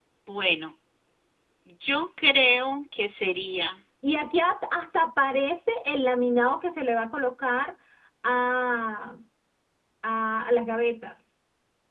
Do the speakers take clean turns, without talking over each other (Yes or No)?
Yes